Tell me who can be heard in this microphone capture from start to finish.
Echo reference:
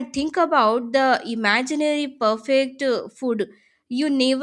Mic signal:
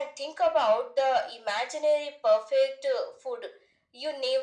echo only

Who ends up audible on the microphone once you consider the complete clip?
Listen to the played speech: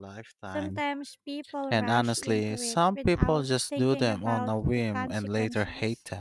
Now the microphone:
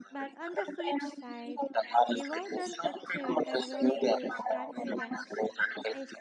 both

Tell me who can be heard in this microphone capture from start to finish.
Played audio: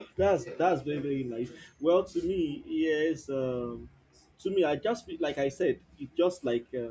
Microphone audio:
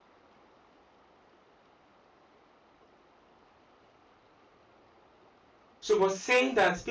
user only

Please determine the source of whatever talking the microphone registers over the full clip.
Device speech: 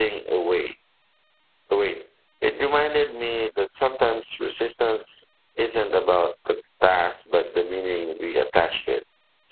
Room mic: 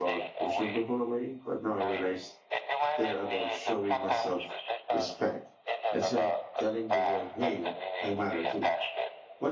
both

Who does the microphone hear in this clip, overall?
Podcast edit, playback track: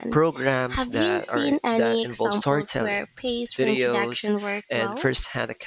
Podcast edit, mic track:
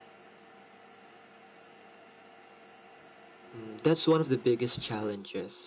user only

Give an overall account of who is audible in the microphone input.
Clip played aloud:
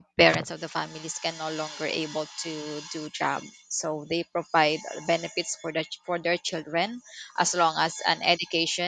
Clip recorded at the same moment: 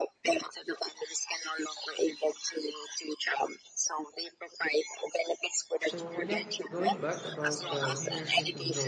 both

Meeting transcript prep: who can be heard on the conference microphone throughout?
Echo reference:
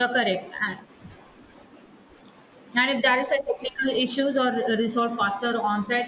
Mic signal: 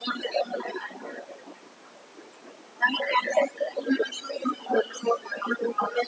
echo only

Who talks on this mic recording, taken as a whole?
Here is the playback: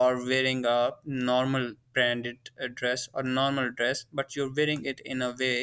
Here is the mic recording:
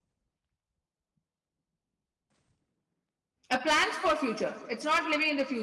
user only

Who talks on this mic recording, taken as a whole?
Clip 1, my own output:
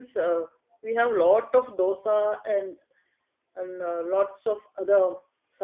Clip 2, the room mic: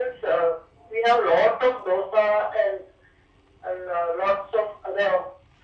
echo only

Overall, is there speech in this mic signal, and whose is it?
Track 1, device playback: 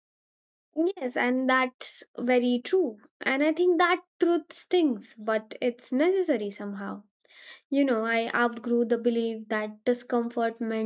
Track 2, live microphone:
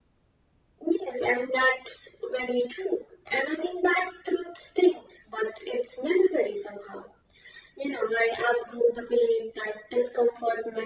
echo only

